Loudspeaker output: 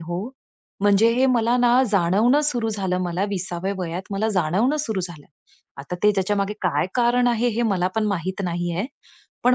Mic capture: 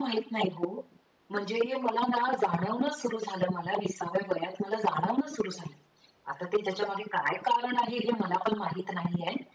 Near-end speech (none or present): none